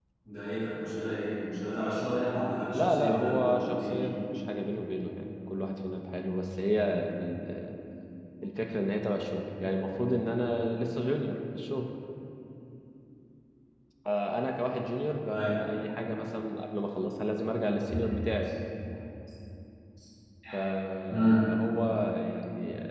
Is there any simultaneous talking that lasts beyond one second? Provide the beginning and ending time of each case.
2.8-4.0

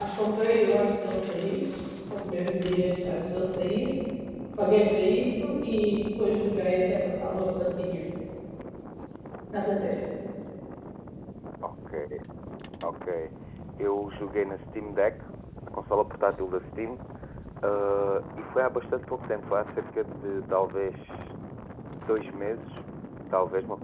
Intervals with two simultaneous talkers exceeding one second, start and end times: none

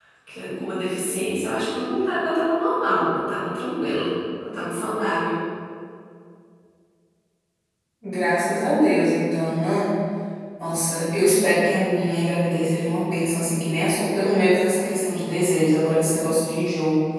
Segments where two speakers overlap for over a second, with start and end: none

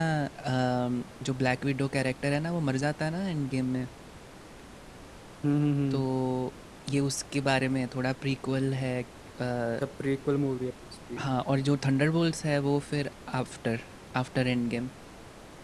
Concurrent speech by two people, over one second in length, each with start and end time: none

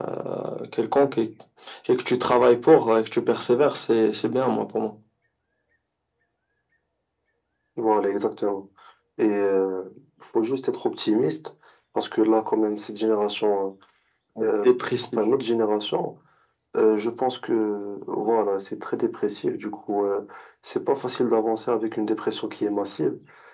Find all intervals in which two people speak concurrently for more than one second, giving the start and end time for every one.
none

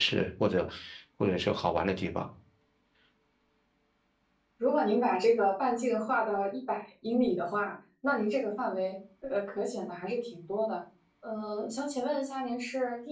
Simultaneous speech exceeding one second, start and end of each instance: none

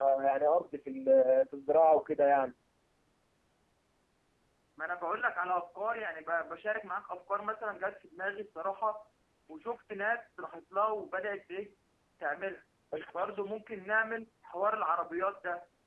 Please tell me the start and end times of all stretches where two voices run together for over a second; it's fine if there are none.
none

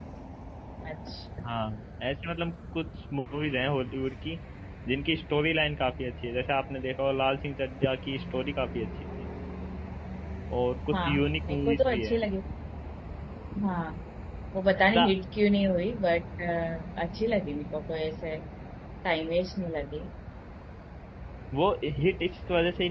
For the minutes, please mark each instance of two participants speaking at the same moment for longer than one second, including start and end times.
10.9-12.2

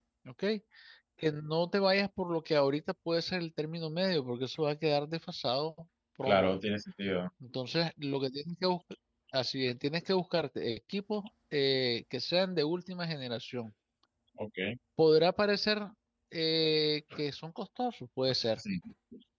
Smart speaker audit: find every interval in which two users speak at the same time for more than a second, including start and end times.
none

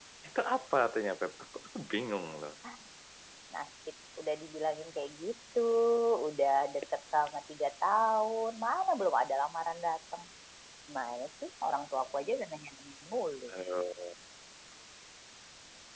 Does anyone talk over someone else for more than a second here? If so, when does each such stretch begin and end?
none

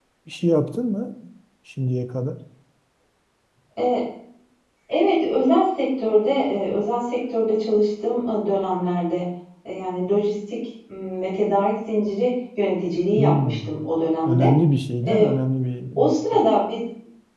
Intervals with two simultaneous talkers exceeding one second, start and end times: none

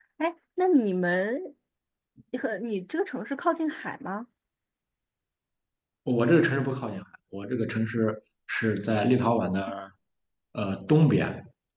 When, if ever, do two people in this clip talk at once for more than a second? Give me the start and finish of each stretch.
none

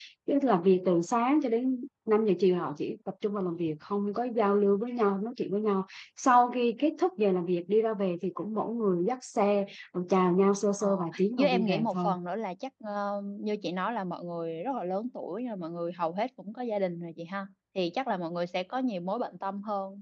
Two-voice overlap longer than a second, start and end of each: 10.8-12.1

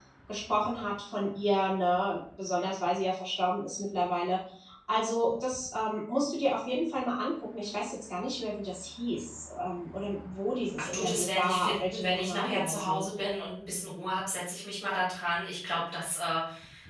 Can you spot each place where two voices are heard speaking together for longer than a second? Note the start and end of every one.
10.8-13.0

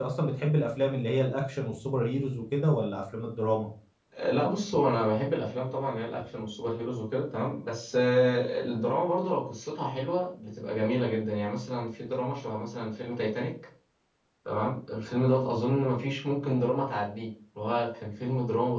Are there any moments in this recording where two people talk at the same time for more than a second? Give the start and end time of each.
none

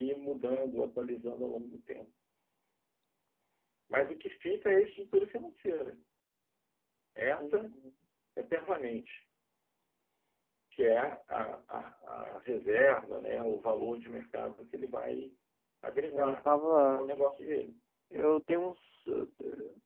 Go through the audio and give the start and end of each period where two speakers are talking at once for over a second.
none

